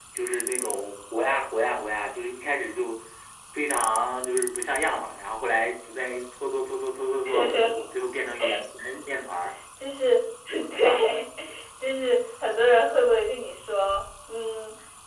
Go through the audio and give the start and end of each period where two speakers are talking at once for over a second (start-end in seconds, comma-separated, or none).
none